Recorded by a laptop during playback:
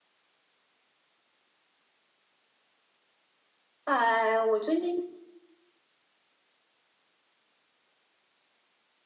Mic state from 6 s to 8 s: neither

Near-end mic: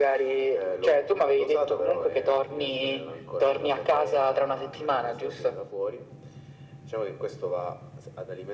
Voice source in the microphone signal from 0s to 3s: echo only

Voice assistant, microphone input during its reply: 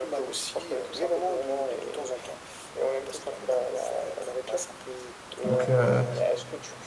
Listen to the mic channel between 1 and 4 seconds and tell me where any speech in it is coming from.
echo only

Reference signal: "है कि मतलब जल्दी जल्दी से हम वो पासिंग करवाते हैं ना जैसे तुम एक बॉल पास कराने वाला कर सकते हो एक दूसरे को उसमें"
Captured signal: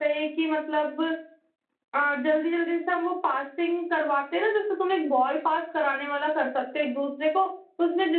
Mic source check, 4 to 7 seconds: echo only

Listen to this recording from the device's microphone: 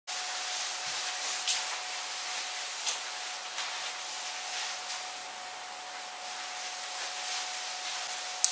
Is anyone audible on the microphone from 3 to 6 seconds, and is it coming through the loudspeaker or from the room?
neither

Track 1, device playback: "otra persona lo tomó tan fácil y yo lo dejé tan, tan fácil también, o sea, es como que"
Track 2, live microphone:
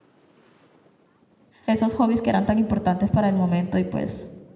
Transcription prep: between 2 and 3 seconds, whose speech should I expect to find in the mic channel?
user only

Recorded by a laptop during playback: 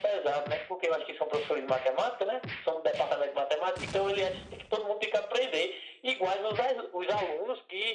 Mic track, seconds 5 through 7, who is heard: echo only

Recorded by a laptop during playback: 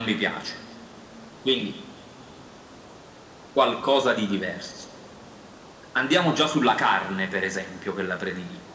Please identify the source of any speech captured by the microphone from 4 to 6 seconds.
echo only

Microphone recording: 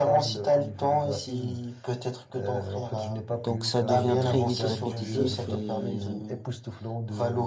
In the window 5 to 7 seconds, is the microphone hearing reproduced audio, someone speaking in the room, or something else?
both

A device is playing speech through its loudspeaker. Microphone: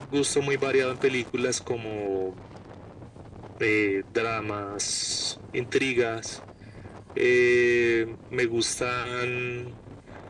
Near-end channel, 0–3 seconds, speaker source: echo only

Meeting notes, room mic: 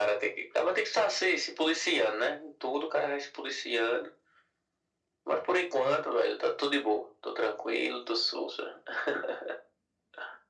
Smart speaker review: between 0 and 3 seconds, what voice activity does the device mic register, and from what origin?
echo only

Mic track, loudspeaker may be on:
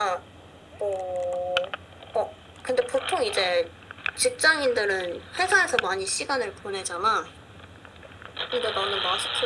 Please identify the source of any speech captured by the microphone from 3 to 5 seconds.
echo only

